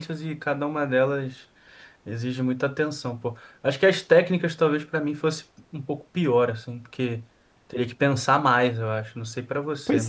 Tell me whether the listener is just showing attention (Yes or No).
No